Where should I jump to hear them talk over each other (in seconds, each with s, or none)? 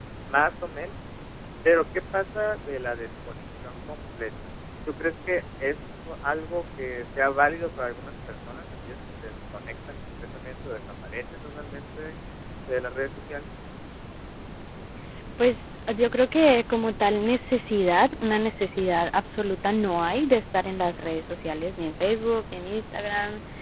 none